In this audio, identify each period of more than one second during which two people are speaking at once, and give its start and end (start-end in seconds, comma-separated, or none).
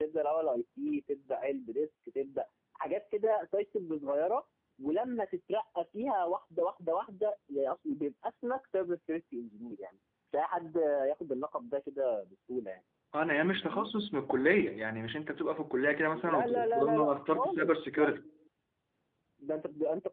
16.1-18.1